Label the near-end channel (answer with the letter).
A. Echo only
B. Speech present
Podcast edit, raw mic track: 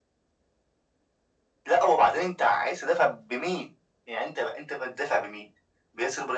A